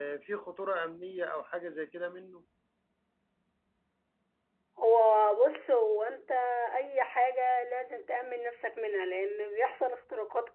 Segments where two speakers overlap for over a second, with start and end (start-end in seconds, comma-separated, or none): none